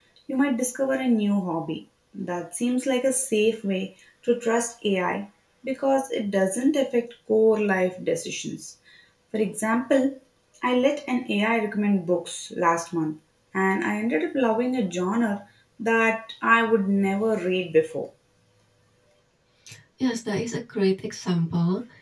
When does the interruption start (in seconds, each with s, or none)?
none